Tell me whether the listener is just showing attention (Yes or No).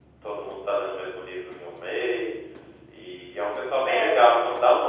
Yes